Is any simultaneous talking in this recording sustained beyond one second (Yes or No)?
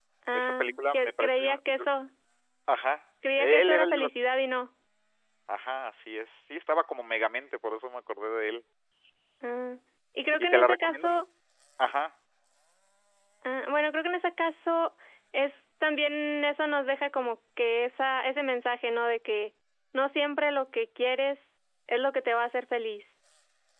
Yes